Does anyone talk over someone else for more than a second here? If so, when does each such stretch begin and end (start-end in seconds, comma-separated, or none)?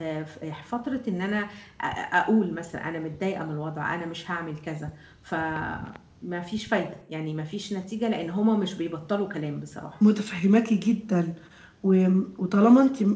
none